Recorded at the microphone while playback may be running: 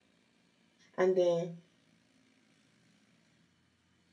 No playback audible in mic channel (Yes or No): Yes